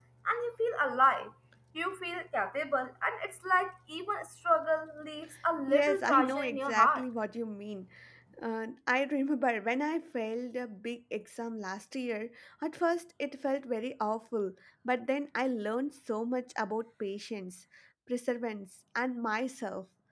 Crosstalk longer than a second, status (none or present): present